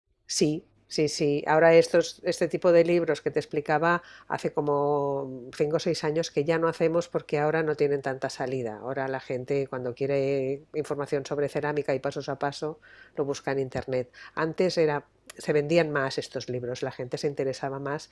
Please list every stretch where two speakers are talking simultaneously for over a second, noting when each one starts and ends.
none

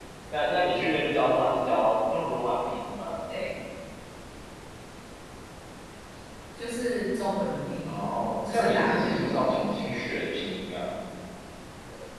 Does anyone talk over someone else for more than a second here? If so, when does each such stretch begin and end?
8.5-9.8

